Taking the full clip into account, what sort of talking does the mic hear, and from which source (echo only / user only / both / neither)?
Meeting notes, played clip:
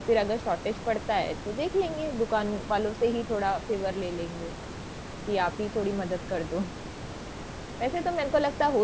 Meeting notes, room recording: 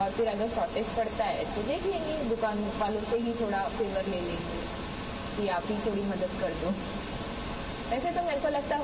echo only